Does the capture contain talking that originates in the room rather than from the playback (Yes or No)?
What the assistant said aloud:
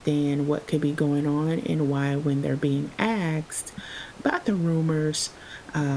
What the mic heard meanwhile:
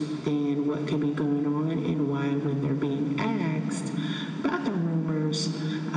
No